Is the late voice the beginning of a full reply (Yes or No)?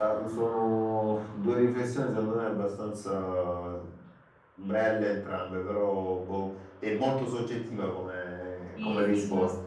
Yes